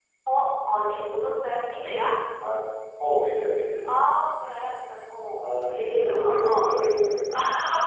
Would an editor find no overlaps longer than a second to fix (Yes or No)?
No